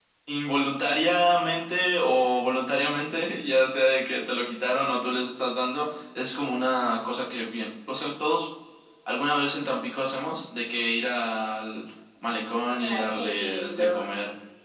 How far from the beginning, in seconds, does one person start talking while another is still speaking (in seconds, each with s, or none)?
12.7 s